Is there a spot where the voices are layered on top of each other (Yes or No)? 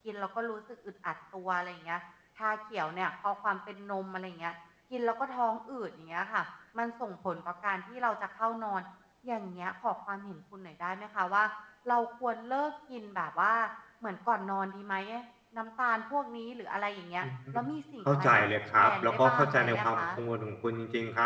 Yes